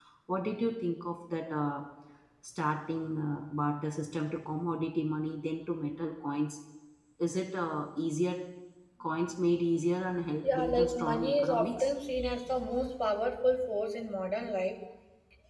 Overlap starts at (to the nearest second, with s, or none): 10 s